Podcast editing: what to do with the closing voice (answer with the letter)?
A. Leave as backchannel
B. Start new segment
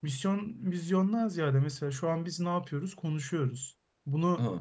A